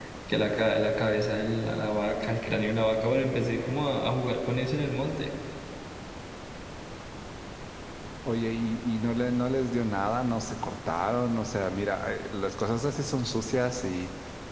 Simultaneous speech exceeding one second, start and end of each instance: none

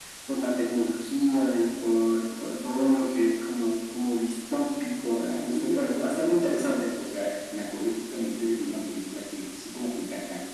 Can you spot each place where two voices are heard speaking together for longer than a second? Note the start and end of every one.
5.2-6.9

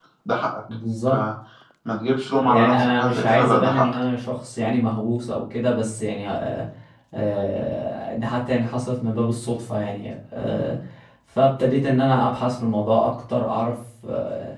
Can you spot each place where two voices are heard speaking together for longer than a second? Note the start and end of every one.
2.4-4.0

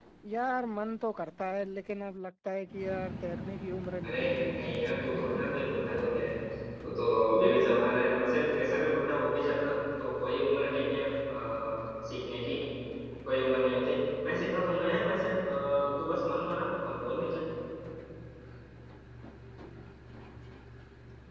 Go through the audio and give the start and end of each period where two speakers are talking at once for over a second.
4.1-5.5

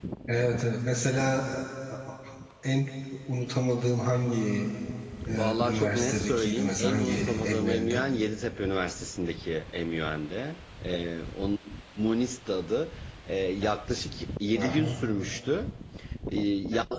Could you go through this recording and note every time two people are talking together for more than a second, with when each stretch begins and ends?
5.4-8.0

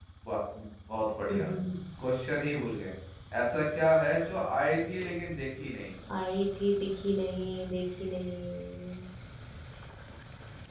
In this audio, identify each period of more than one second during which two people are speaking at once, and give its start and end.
none

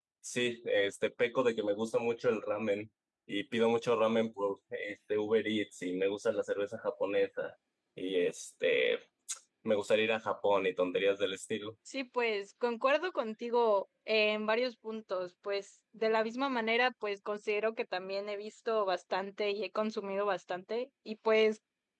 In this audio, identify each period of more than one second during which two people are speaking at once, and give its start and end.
none

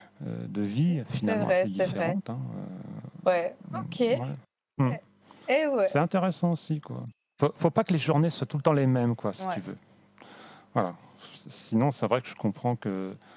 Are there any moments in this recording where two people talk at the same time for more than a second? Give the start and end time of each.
0.9-2.2

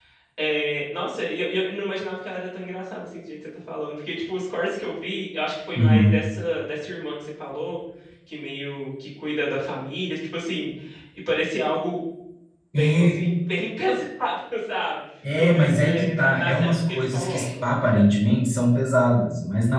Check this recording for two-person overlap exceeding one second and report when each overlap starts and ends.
15.4-17.7

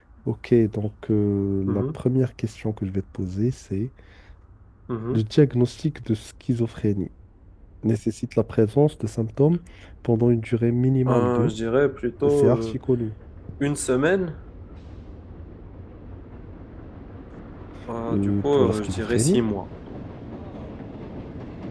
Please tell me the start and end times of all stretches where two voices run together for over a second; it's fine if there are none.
18.1-19.4

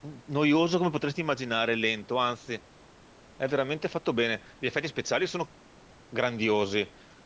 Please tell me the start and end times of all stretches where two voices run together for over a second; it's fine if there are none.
none

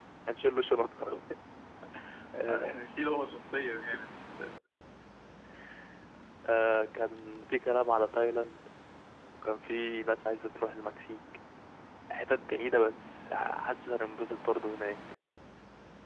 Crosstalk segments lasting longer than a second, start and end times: none

